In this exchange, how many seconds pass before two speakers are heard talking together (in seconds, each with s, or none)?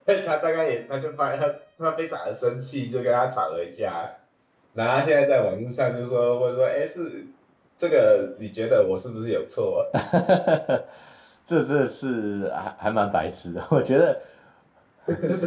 none